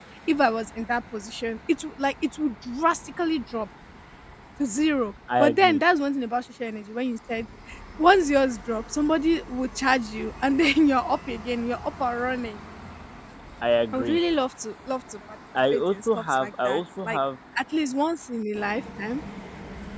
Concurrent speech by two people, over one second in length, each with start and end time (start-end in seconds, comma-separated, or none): 15.7-17.2